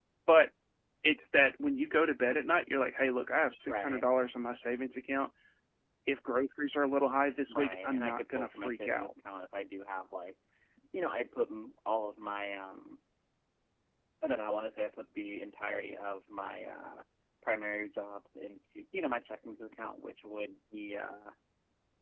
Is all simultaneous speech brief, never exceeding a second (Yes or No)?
No